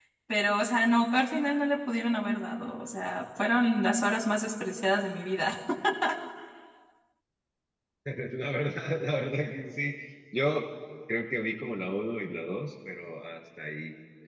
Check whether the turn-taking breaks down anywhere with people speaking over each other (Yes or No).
No